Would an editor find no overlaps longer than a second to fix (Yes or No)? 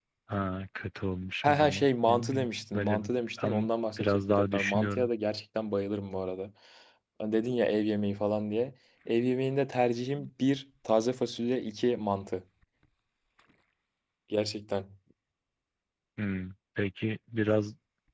No